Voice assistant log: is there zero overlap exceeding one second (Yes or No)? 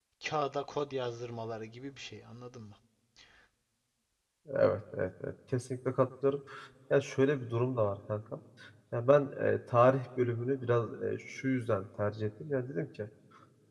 Yes